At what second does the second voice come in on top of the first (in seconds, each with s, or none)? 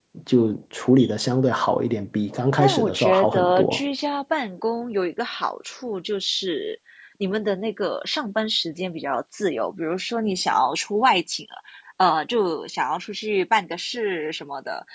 2.6 s